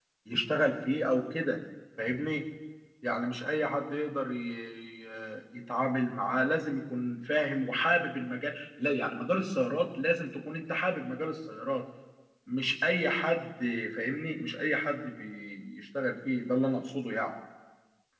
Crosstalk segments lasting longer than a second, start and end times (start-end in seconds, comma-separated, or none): none